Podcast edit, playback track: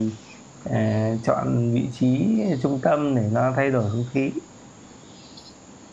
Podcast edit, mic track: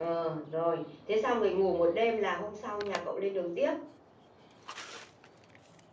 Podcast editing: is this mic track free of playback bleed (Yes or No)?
Yes